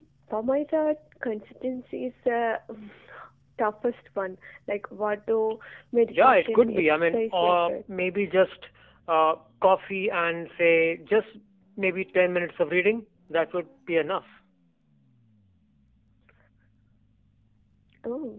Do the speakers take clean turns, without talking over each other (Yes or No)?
No